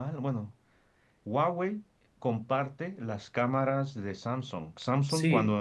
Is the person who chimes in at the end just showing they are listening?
Yes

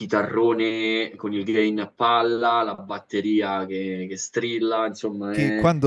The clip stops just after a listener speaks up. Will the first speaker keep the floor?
No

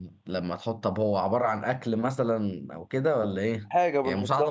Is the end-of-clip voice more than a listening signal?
Yes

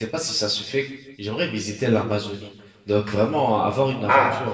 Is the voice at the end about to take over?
No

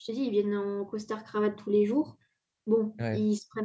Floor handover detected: No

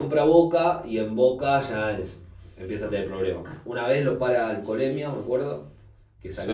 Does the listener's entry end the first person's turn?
No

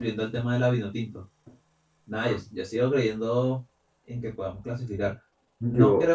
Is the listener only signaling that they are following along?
Yes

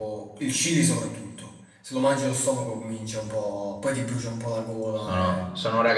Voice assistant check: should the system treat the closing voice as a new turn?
Yes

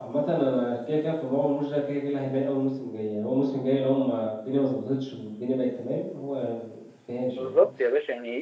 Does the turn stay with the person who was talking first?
No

